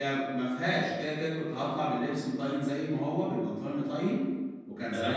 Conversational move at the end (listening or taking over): listening